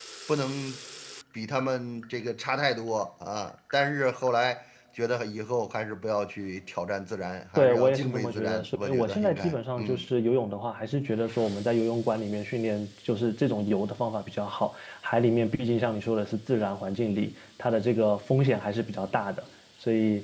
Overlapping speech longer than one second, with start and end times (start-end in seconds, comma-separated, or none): 7.6-10.0